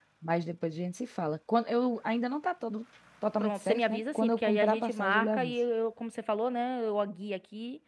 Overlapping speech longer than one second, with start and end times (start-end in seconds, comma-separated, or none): 3.4-5.5